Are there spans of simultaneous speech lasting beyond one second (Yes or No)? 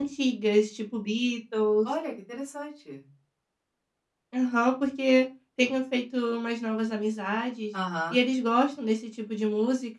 No